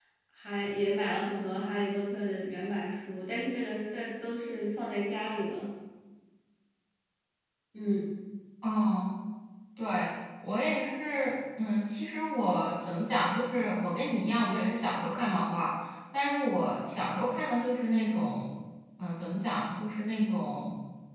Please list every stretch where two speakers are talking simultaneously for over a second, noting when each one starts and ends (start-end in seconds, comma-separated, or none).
none